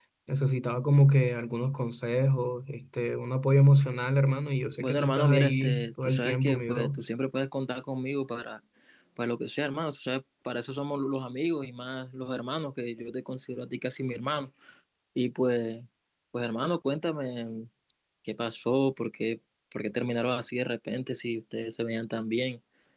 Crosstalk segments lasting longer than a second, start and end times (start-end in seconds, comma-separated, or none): 4.8-7.0